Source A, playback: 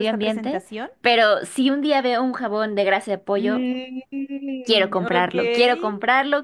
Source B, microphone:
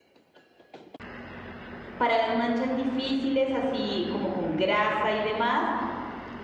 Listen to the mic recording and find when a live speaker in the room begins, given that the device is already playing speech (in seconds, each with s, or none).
2.0 s